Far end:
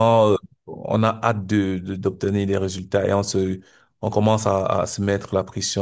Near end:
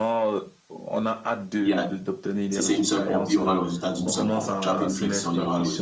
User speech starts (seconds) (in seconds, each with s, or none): 1.6 s